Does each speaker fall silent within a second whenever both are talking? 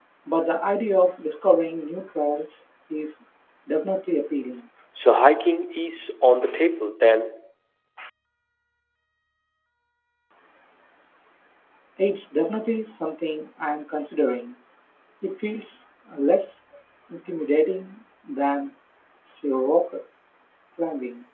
Yes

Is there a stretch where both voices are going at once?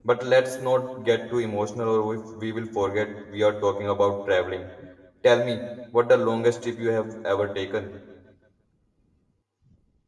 No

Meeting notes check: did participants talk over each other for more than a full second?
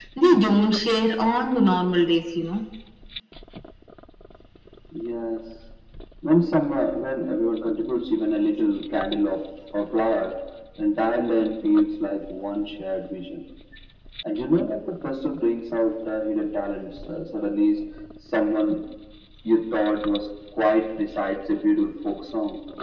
No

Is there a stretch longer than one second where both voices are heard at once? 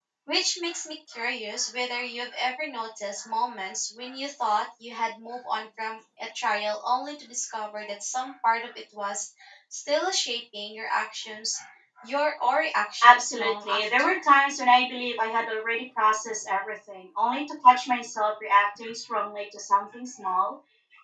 Yes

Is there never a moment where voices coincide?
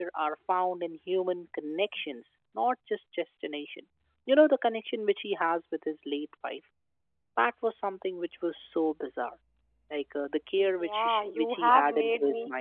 No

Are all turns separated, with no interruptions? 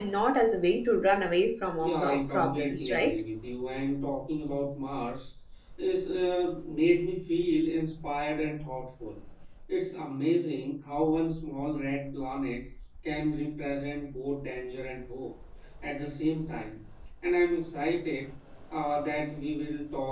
No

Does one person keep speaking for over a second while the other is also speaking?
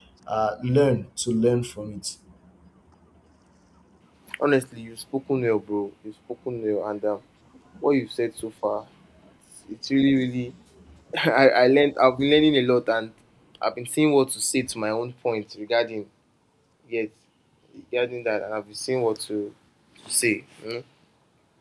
No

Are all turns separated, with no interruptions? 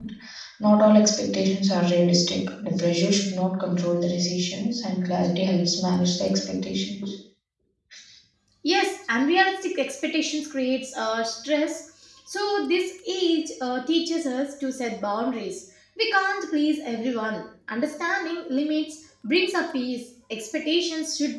Yes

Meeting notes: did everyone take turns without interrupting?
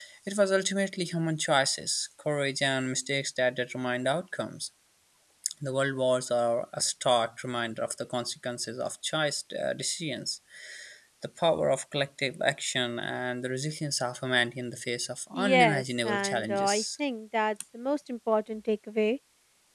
No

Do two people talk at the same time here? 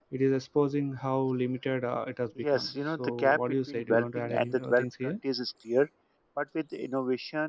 Yes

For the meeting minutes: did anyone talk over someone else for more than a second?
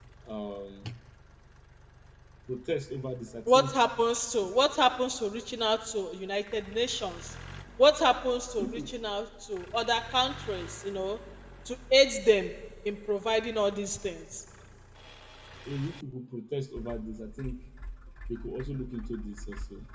No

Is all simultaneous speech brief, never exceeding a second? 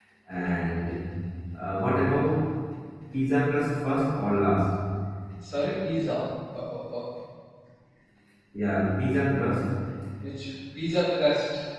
Yes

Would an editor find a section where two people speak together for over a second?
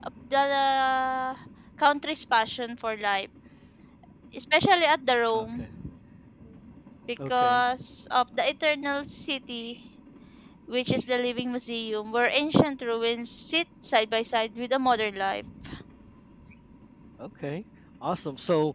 No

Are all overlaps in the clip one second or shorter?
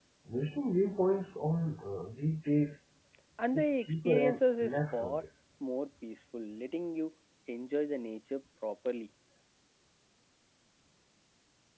No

